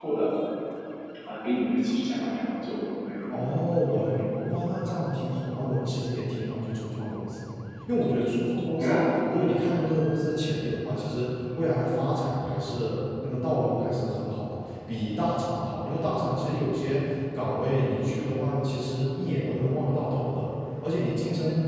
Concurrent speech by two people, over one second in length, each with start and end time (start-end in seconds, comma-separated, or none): none